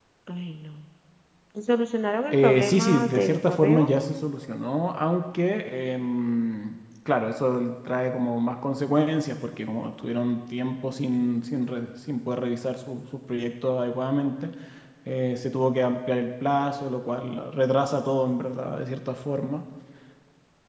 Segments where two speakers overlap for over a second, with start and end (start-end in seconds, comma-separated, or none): 2.3-3.9